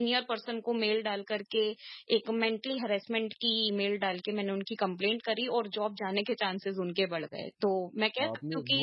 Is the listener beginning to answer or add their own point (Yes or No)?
Yes